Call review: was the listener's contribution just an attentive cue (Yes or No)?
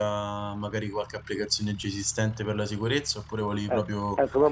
No